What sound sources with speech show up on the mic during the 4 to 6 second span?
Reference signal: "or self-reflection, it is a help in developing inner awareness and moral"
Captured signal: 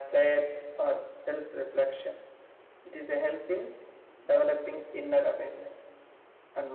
echo only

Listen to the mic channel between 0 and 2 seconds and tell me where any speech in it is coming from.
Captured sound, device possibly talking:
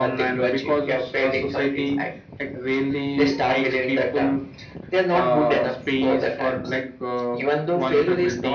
echo only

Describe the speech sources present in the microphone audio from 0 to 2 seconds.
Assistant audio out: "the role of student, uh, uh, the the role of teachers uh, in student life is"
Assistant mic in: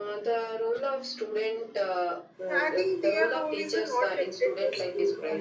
echo only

